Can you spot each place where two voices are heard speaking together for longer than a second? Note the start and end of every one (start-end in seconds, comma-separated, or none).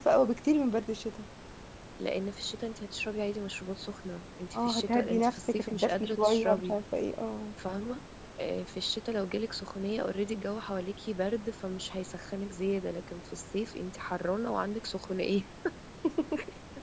4.5-6.8